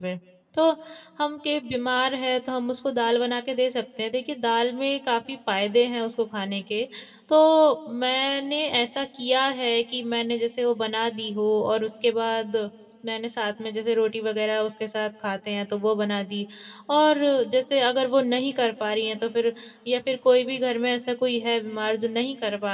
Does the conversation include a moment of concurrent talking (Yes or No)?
No